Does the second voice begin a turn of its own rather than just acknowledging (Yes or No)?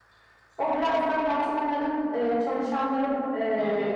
No